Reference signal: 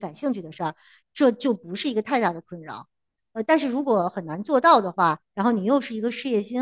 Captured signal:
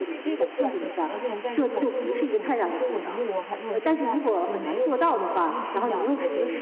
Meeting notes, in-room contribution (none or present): present